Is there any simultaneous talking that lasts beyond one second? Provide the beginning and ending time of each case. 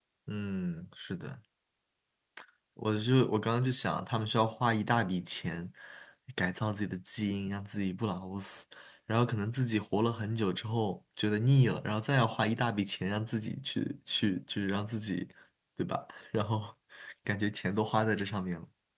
none

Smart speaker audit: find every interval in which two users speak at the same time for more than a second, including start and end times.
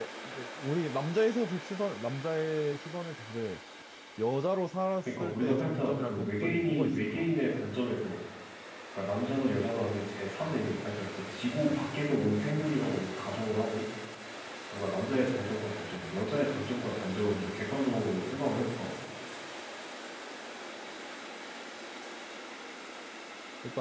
5.0-7.3

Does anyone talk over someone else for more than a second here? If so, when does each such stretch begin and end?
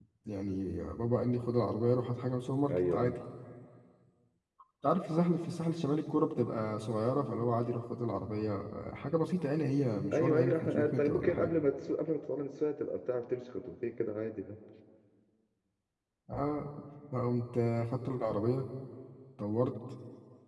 10.1-11.5

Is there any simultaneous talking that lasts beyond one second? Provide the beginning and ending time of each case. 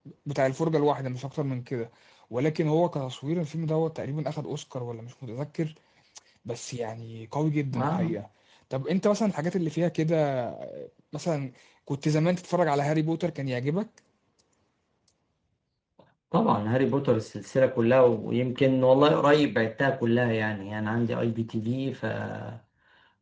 none

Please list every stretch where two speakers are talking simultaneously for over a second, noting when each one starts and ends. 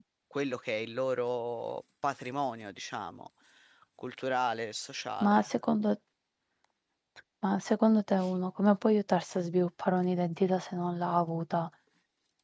none

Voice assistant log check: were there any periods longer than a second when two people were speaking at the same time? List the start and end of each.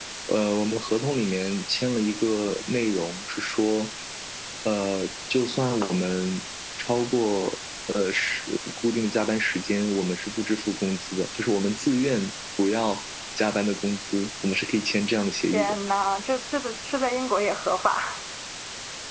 none

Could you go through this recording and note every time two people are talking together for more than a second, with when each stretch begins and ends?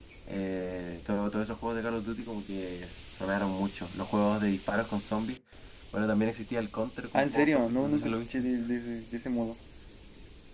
7.2-8.5

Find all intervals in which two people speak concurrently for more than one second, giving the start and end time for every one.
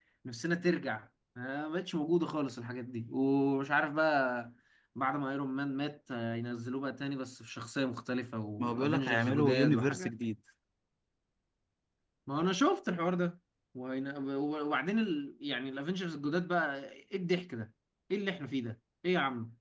8.6-10.1

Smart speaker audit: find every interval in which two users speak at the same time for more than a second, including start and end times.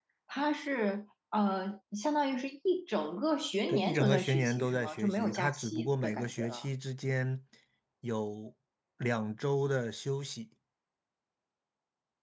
3.7-6.7

